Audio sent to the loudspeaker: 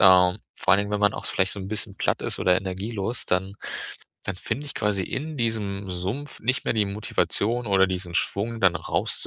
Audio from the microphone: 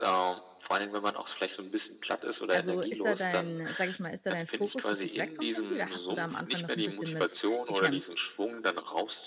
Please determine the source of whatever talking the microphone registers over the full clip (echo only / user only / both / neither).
both